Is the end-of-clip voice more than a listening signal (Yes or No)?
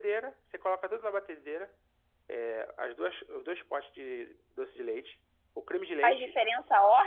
Yes